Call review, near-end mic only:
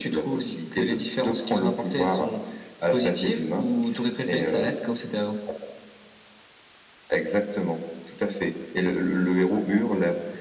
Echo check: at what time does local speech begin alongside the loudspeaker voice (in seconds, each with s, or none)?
none